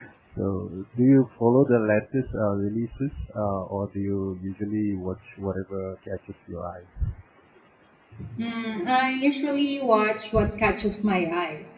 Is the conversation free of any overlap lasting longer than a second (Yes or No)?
Yes